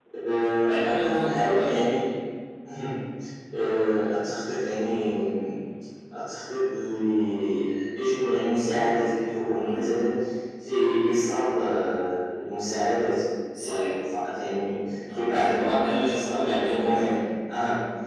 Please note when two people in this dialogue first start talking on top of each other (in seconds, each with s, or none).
0.6 s